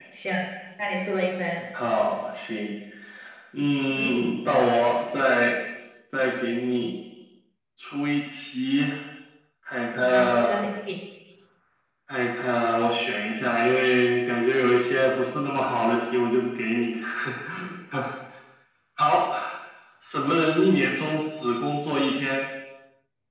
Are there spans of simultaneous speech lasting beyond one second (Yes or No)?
No